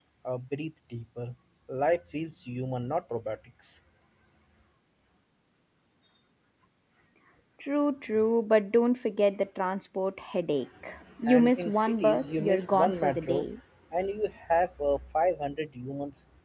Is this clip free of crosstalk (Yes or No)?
No